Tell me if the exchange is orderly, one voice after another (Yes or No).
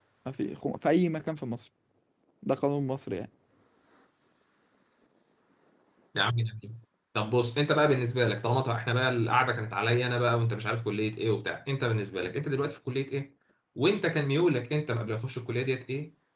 Yes